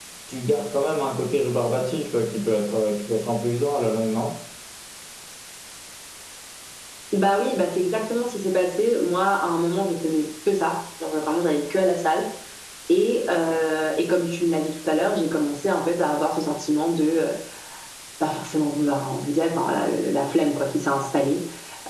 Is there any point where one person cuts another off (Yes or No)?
No